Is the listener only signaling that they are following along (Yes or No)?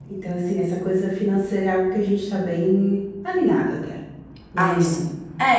No